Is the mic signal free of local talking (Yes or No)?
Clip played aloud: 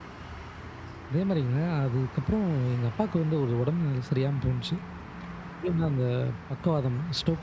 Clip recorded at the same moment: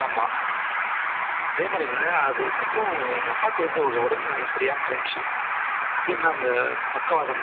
Yes